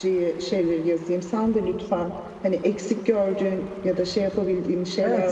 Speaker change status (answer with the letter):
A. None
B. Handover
B